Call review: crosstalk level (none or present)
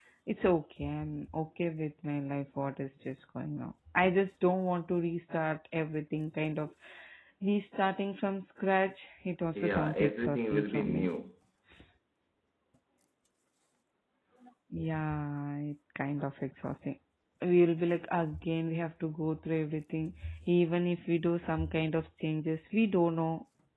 present